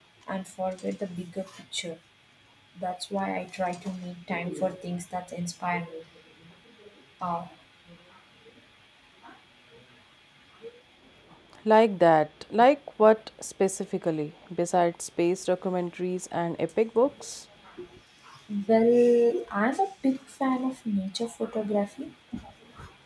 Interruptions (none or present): none